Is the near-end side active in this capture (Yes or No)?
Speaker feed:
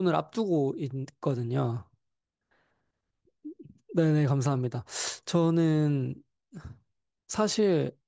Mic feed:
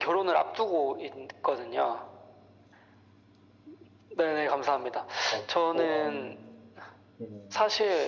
Yes